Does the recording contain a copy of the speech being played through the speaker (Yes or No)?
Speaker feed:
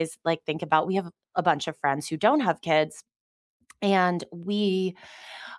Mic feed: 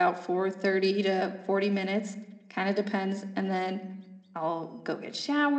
No